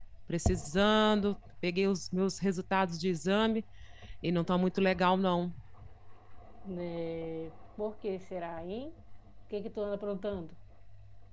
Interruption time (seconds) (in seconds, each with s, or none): none